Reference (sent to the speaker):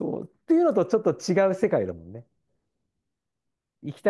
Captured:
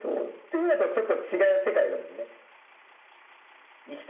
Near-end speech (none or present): none